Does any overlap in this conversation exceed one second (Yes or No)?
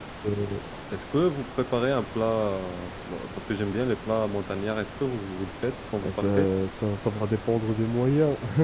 No